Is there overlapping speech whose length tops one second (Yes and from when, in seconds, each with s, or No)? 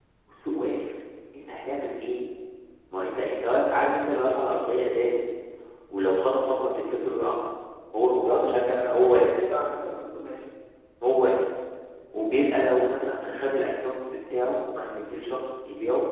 Yes, from 8.0 s